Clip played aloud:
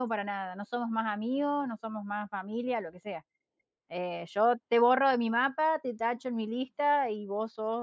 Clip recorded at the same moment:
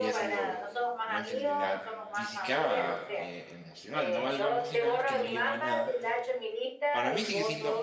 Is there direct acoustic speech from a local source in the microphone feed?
Yes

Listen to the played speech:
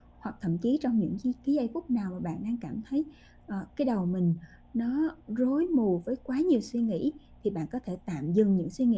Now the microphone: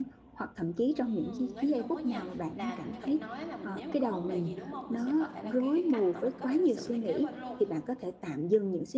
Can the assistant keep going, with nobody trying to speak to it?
No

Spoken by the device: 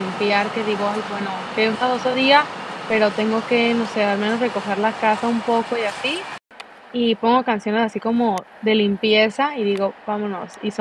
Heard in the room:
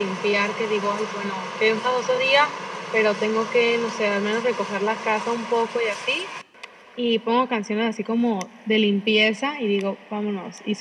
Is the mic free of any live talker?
Yes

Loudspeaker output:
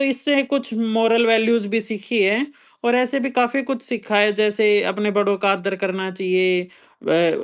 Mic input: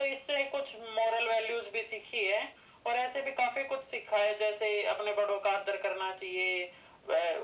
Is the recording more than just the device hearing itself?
No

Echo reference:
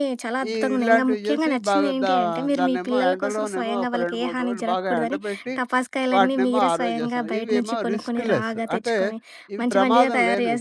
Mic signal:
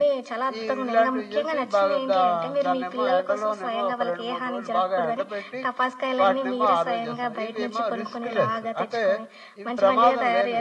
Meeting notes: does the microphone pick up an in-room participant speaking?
No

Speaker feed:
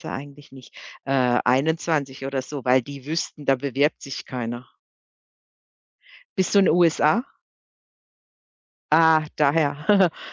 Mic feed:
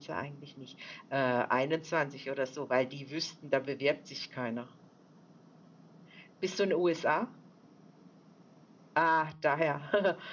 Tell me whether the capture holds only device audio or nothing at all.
Yes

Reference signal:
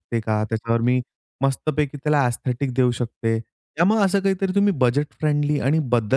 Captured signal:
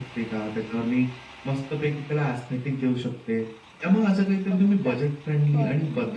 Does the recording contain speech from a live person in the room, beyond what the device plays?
Yes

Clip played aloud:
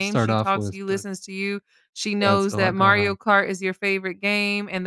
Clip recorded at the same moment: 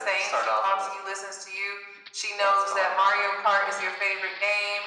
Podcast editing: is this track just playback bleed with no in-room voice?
Yes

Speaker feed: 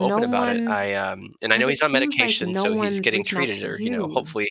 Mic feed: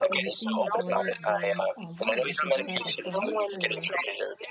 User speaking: Yes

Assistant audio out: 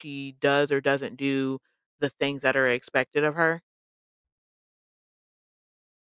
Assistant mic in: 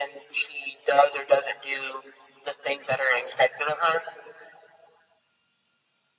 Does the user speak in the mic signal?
No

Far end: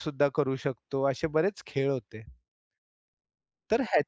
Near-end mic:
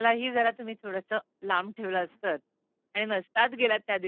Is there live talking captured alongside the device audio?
Yes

